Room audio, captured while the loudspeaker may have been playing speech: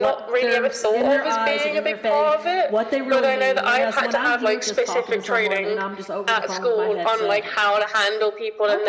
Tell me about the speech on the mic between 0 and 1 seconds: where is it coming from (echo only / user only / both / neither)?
both